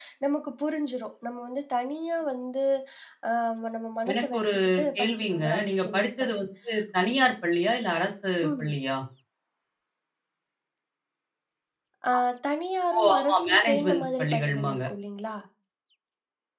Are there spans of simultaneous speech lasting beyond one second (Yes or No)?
Yes